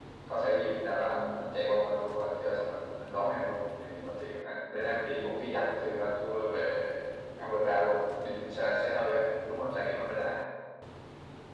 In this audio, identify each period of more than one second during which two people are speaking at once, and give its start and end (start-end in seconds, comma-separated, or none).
none